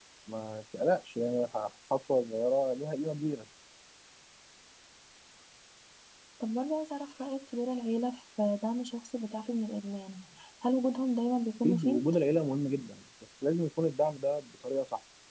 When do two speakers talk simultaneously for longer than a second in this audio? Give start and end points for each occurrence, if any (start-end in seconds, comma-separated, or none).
none